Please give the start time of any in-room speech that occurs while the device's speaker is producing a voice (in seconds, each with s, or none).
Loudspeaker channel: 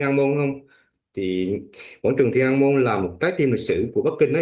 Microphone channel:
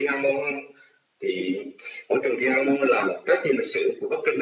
none